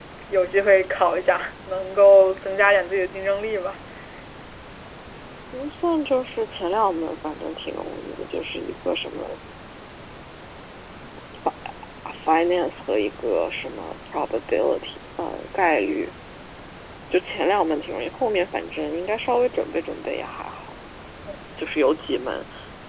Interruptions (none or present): none